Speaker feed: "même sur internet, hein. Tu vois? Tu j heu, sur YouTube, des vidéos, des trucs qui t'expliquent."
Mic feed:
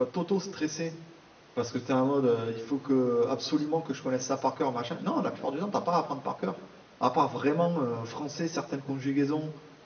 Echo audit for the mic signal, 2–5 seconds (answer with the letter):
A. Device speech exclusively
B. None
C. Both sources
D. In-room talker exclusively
D